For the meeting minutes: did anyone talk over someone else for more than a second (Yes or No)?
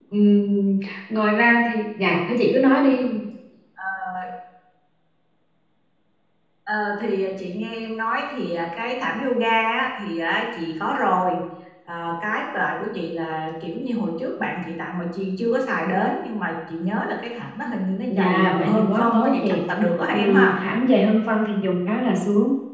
Yes